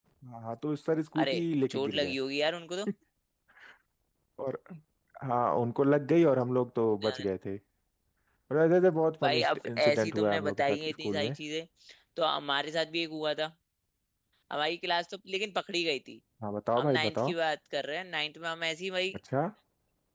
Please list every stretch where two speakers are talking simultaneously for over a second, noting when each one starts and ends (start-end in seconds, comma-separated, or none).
9.2-11.3